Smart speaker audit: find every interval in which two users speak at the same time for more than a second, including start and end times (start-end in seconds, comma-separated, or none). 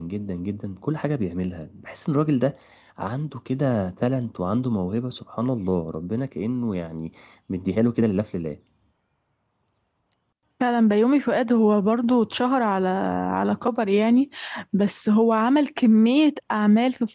none